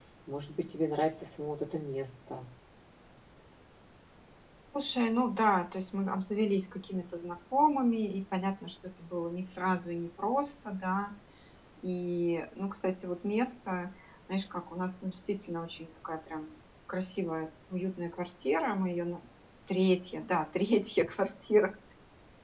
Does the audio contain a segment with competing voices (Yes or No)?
No